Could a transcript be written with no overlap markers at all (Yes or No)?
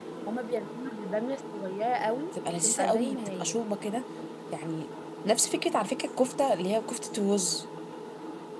No